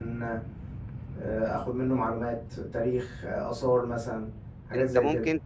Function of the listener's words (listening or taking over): taking over